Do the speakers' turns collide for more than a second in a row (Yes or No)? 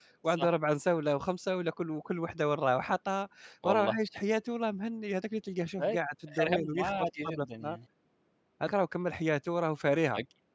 Yes